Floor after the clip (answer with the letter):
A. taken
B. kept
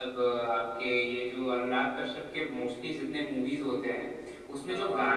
B